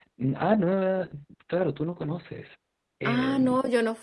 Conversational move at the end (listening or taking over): taking over